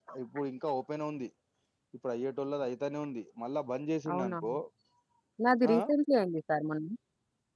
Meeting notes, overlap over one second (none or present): none